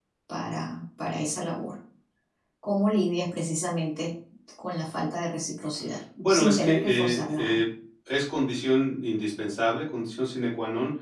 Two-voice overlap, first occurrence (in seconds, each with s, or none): 6.3 s